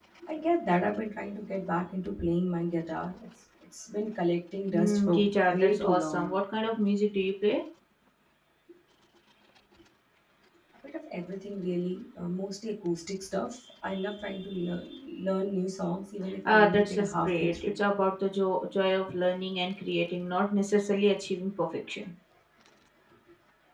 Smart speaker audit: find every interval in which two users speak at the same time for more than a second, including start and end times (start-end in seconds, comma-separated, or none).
4.7-6.3, 16.4-17.7